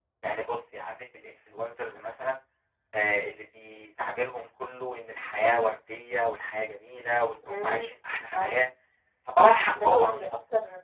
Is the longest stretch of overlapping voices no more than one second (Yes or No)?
Yes